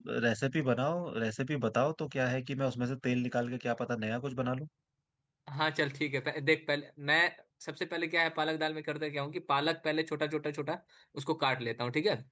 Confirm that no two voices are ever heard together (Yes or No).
Yes